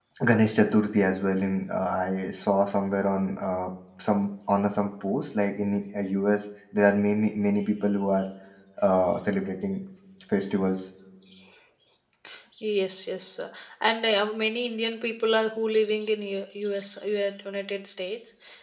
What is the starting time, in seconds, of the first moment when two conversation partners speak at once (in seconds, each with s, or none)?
none